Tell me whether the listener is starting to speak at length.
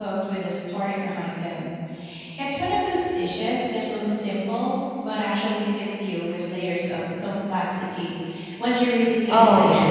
Yes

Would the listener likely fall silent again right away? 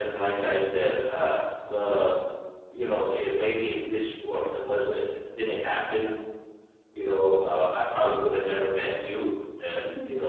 Yes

